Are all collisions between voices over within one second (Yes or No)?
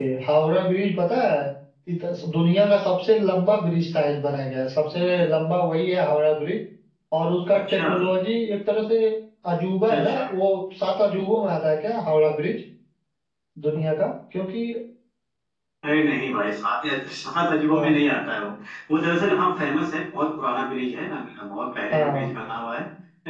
Yes